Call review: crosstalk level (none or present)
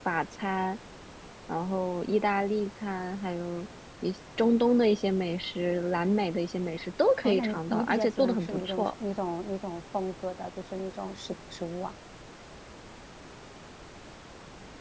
present